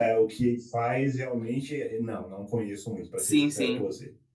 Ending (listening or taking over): taking over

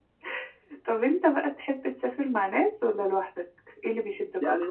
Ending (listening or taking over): taking over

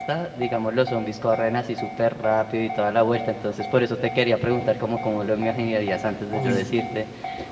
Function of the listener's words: listening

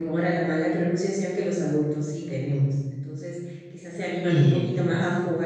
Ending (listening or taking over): listening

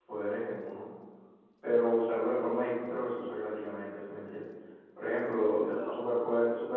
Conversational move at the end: listening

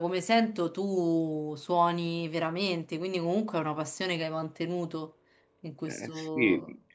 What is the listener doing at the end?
taking over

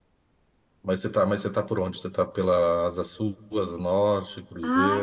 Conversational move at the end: taking over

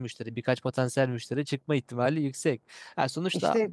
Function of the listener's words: listening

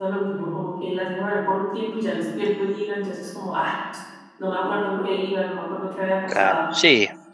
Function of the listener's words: taking over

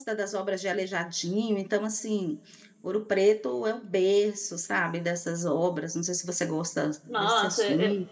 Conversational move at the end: taking over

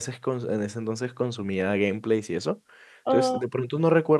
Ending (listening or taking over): listening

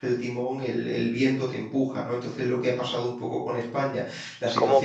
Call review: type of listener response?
taking over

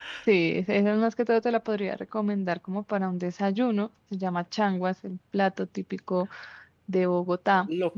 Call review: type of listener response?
taking over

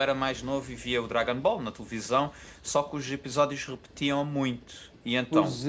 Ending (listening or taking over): taking over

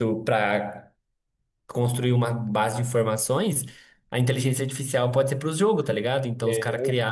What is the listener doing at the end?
listening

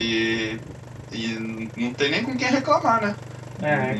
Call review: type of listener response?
listening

